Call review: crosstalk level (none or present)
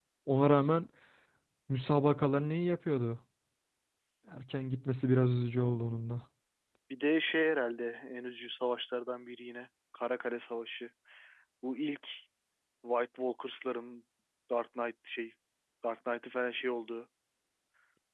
none